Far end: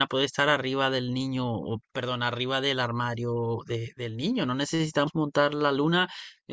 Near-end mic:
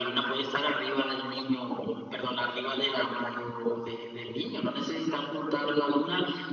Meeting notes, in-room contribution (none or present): none